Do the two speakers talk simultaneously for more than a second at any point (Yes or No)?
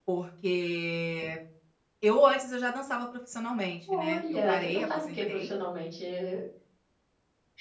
Yes